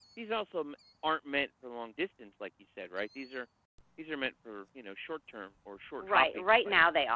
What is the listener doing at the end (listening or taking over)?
taking over